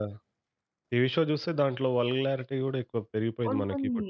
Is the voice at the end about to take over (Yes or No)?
Yes